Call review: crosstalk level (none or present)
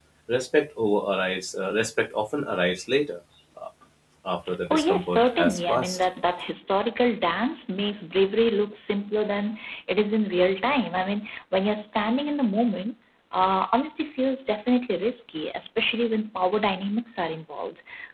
present